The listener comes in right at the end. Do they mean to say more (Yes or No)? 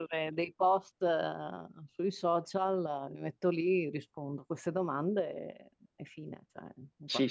Yes